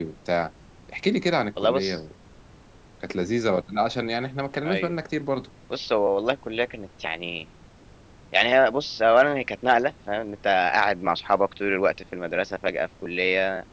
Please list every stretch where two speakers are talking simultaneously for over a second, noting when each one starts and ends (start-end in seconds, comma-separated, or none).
none